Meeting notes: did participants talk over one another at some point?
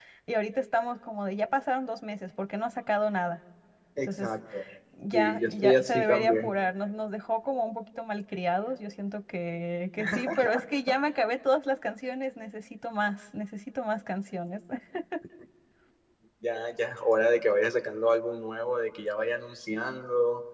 Yes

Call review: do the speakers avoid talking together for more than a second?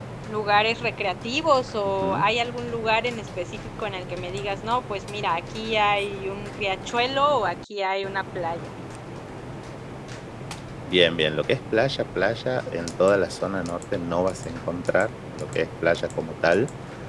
Yes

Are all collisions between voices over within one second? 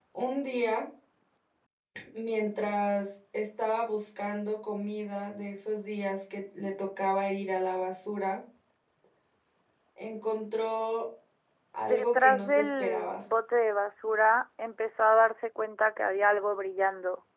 No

